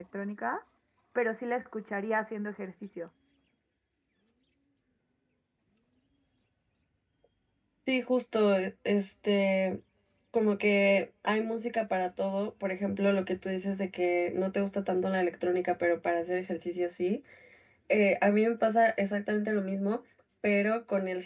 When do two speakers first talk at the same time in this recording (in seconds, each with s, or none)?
none